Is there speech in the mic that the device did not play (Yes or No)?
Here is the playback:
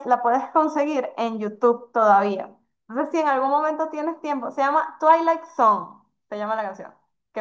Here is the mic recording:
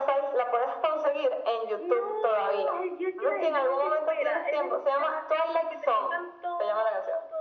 Yes